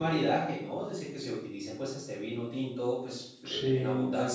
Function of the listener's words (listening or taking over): listening